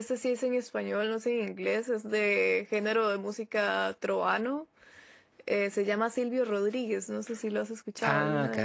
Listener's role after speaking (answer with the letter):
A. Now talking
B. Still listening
A